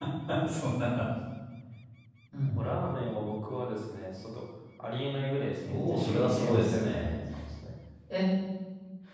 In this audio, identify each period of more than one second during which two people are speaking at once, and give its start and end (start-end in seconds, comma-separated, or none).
5.7-7.2